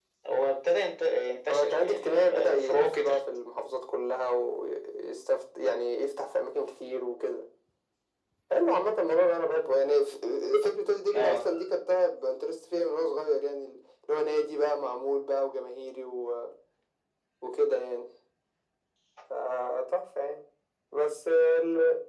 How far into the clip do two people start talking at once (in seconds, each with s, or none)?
1.5 s